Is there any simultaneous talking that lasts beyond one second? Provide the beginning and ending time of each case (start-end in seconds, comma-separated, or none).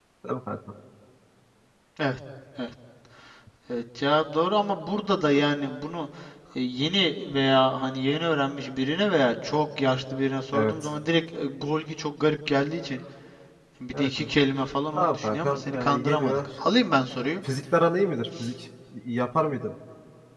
14.9-16.5